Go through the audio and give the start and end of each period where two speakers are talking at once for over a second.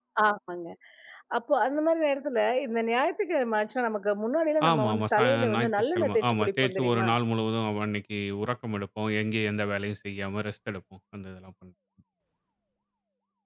4.7-7.1

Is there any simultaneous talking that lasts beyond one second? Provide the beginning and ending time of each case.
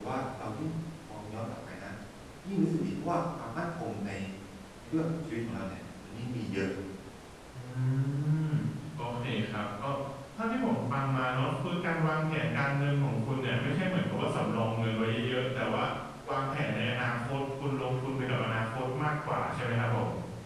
none

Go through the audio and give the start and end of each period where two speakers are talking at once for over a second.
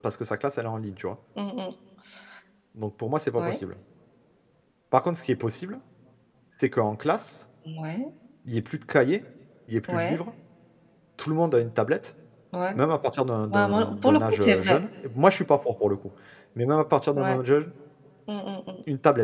13.5-14.8

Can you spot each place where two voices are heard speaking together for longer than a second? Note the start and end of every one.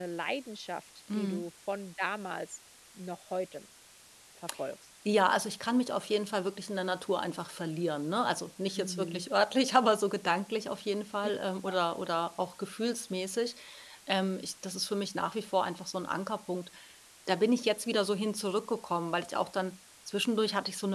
none

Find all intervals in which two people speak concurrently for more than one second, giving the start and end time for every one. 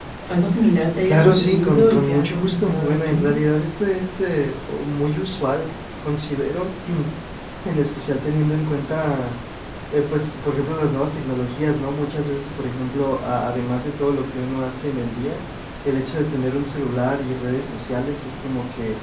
1.0-3.2

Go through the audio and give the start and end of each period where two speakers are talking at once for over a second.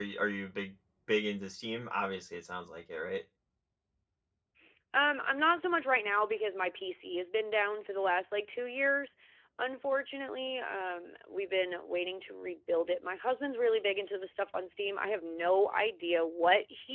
none

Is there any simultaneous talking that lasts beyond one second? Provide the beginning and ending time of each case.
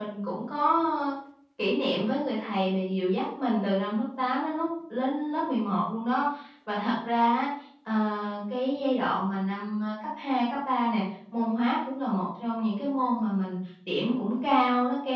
none

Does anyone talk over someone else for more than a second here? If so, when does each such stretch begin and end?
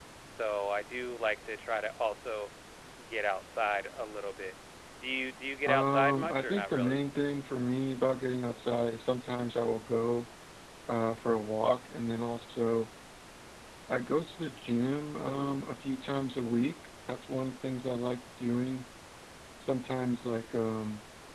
5.7-7.0

